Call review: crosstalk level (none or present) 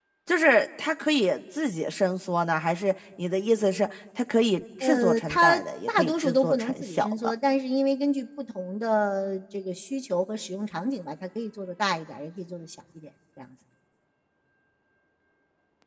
present